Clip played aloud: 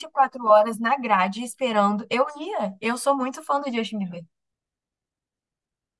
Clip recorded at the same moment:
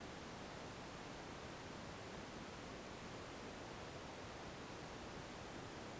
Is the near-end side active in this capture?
No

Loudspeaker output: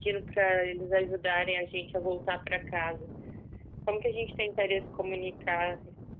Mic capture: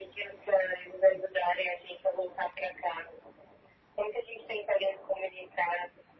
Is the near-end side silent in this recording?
Yes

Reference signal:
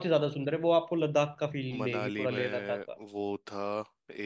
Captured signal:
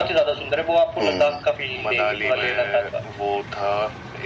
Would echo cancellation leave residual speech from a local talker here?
Yes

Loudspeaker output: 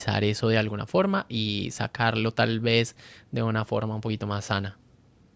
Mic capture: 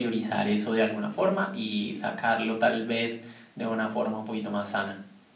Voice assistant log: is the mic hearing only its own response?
Yes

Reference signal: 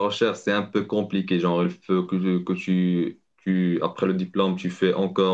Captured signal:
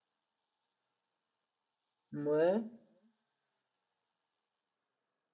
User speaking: Yes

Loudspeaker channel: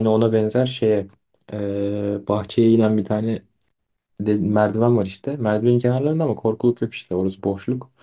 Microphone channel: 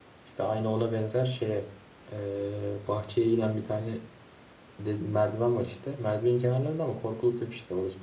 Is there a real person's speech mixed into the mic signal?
No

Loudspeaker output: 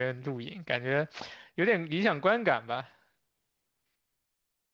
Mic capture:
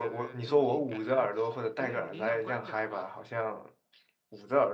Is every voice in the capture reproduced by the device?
No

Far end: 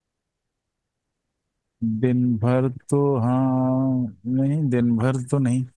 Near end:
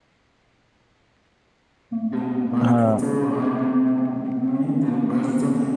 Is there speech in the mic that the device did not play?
Yes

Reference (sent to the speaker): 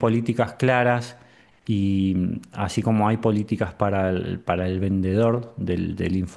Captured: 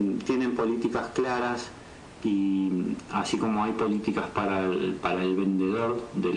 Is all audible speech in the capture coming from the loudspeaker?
Yes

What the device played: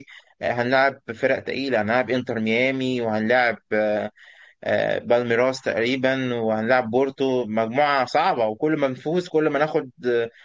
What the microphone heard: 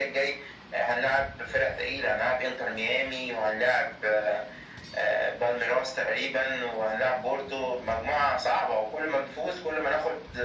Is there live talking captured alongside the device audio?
No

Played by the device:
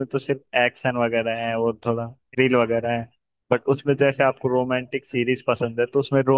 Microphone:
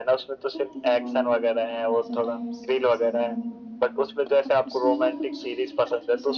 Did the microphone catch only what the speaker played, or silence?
No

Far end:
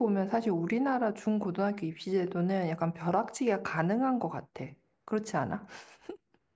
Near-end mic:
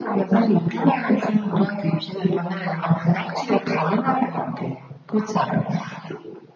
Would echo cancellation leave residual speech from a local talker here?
No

